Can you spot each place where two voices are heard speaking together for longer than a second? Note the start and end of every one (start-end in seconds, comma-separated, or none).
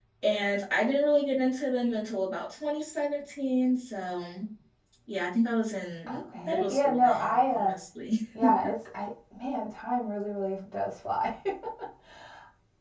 6.1-7.7